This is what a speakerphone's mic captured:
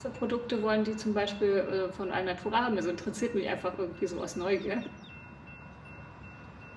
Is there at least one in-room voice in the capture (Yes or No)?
Yes